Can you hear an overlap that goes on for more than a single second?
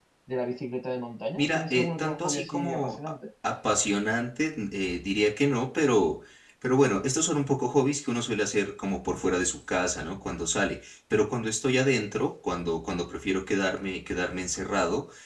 Yes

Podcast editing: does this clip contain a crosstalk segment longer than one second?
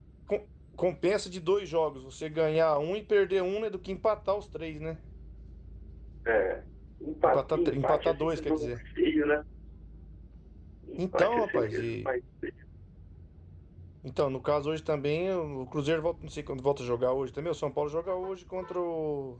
Yes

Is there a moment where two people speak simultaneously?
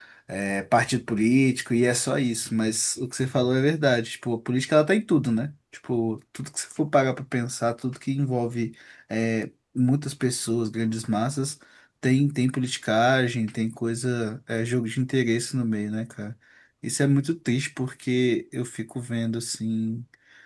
No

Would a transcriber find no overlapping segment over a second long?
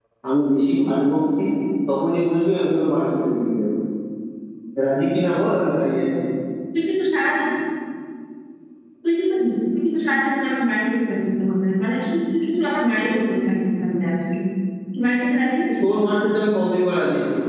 Yes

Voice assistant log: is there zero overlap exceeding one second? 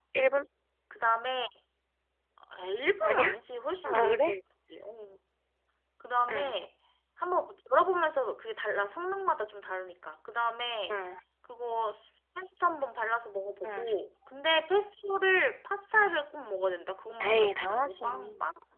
No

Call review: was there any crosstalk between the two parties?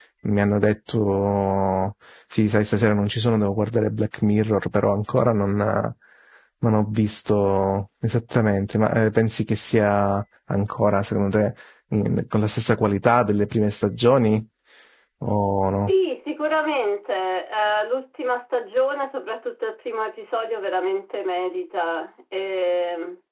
No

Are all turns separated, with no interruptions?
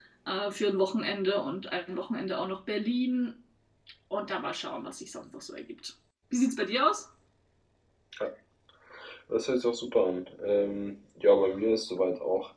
Yes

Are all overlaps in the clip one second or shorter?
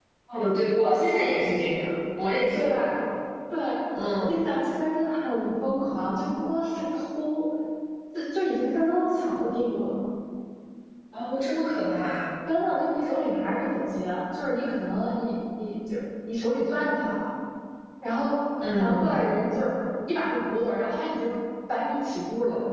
Yes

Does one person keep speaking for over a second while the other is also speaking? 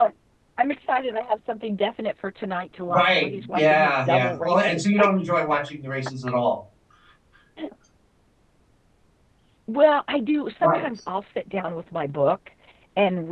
Yes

